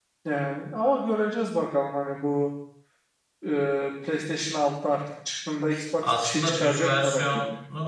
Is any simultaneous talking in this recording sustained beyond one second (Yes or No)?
Yes